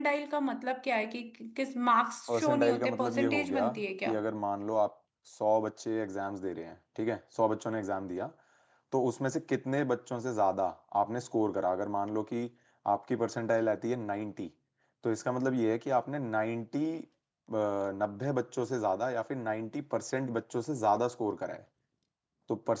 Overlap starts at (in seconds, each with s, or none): 2.3 s